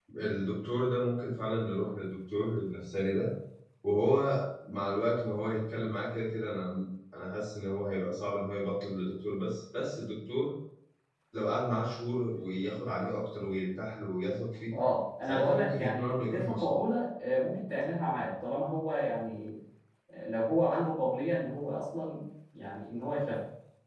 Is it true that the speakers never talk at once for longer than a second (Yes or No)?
No